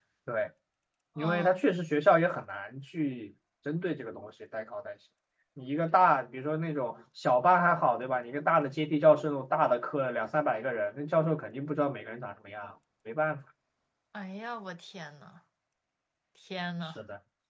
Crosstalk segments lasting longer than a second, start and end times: none

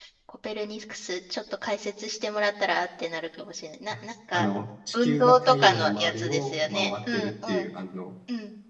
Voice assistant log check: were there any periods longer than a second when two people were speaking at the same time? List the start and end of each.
4.9-7.7

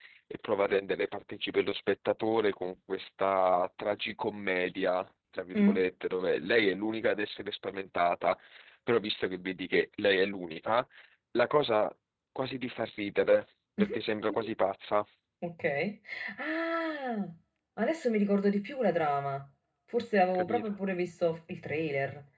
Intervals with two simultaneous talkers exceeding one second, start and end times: none

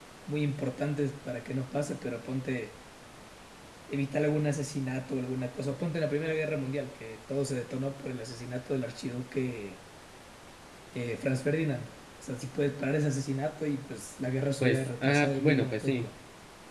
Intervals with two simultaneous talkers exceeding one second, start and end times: 14.6-16.1

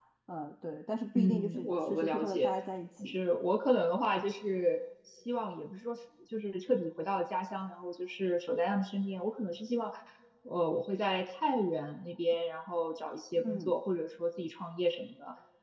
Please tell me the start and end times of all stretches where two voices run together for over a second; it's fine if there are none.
1.1-2.5

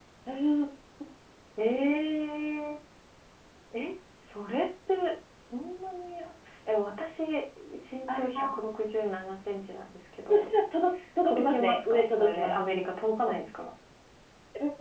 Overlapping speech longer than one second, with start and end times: 11.2-12.6

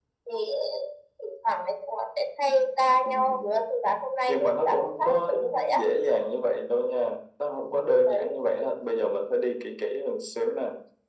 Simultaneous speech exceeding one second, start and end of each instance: 4.3-5.8

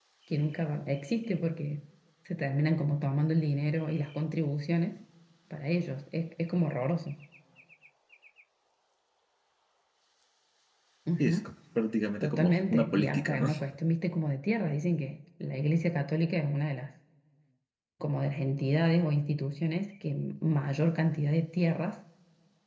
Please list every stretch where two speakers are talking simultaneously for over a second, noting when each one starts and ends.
12.2-13.5

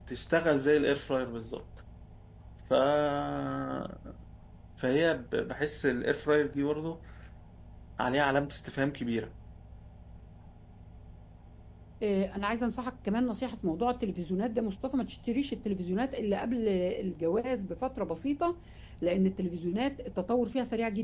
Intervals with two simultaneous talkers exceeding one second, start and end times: none

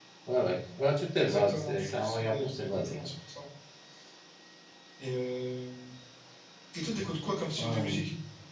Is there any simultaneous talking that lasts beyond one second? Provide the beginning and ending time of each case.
1.2-3.0

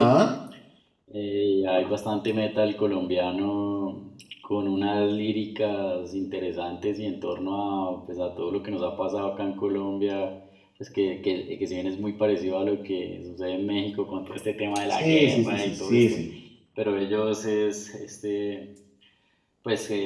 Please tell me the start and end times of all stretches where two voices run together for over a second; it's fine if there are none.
14.9-16.2

